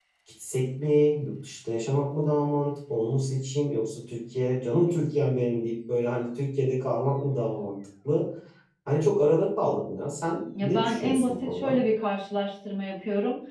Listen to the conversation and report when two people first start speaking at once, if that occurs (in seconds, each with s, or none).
10.5 s